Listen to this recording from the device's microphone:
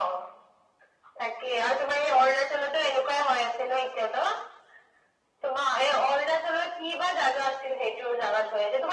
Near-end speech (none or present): none